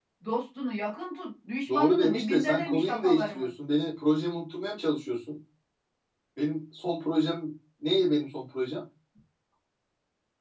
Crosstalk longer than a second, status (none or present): present